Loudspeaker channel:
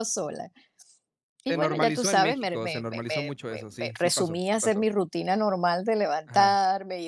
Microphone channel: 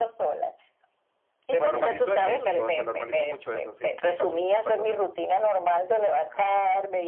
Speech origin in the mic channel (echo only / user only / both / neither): echo only